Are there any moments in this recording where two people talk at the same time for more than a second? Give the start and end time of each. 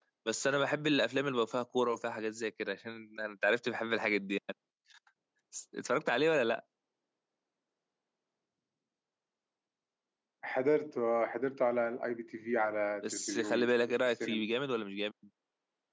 13.0-14.4

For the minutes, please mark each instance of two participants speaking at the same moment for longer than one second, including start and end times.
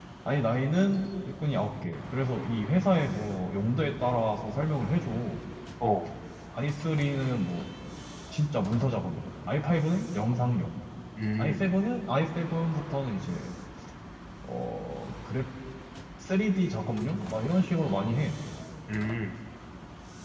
none

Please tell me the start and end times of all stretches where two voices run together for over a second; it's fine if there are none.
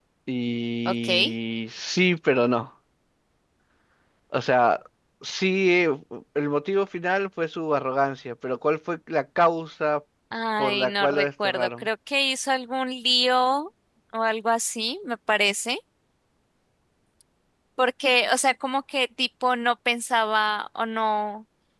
10.6-11.8

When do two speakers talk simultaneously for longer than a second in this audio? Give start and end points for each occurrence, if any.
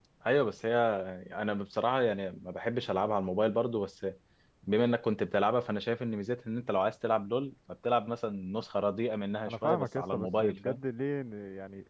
9.5-10.8

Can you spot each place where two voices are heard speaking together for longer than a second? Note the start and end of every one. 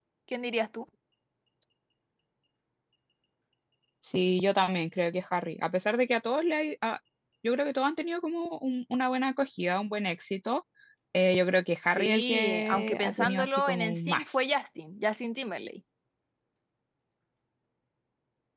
11.8-14.4

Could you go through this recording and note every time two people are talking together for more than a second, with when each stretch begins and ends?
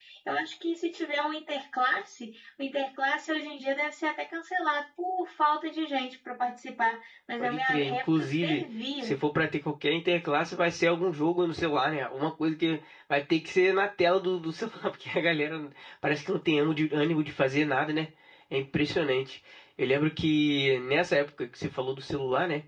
7.4-8.6

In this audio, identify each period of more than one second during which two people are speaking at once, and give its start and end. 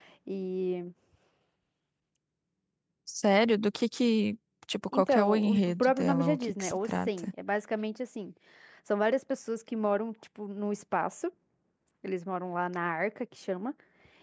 4.9-7.3

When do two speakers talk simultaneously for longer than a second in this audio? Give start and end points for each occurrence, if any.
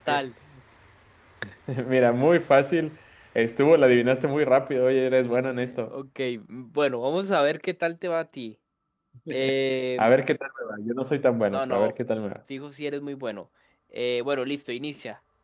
none

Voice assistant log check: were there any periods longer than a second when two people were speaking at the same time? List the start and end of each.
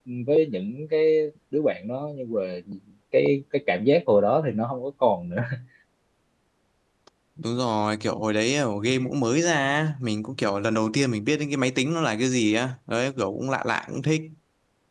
none

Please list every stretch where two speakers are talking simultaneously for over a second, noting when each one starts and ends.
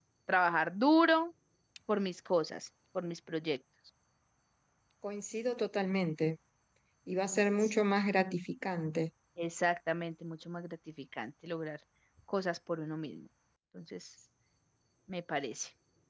none

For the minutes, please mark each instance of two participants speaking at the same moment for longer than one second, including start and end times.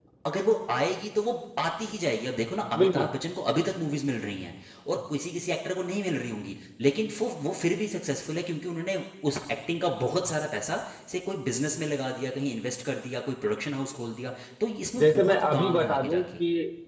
15.0-16.2

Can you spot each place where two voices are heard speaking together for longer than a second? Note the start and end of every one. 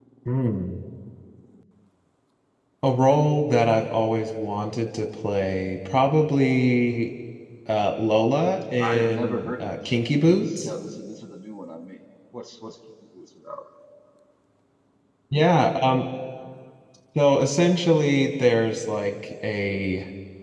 8.8-10.7

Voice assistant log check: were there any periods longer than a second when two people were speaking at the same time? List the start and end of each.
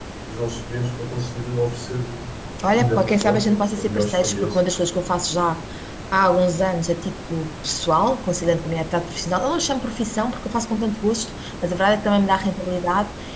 2.7-4.6

